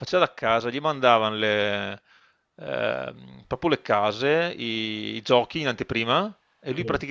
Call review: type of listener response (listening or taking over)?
listening